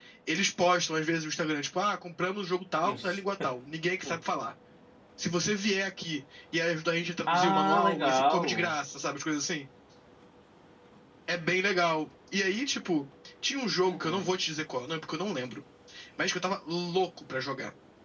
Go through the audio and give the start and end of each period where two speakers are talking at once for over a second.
7.3-8.8

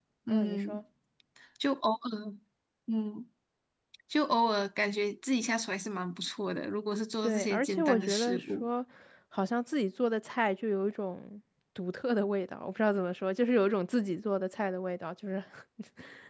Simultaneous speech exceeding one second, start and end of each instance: 7.2-8.7

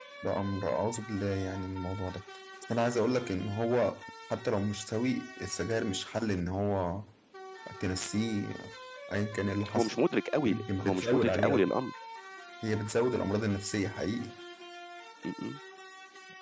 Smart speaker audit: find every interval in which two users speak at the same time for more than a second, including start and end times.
10.4-11.6

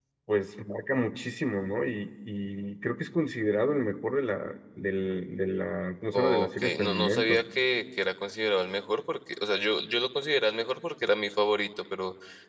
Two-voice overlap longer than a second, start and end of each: 6.1-7.4

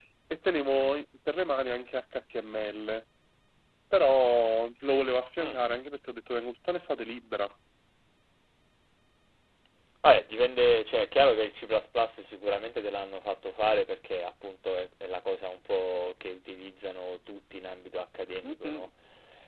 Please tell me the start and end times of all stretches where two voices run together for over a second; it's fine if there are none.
none

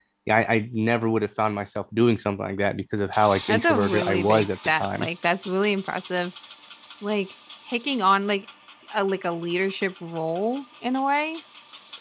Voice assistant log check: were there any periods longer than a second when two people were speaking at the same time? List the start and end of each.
3.5-5.1

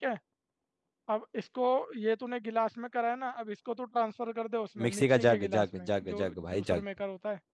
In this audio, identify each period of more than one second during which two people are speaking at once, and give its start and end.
4.8-6.8

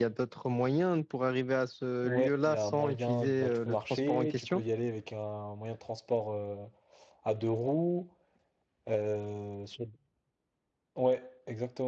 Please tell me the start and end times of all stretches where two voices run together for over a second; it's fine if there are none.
2.0-4.6

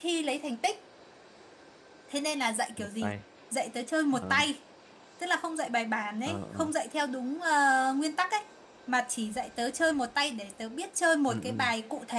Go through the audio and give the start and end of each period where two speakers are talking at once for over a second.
none

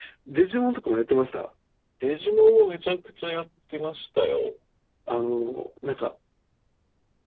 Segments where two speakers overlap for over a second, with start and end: none

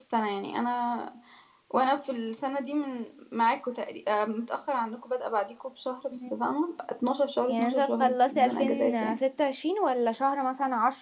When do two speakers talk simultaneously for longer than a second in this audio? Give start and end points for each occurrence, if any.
7.5-9.2

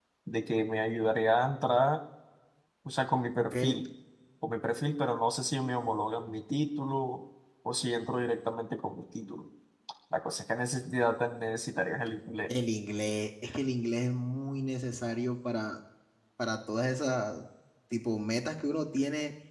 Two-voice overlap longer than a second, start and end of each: none

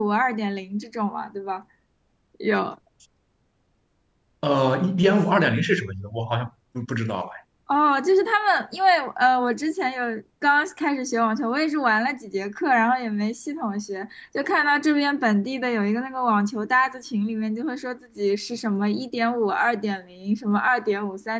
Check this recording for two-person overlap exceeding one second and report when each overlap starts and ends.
none

